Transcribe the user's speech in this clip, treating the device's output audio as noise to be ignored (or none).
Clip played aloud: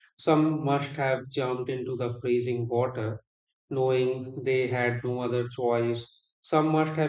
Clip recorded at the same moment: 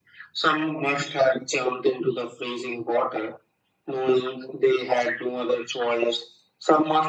none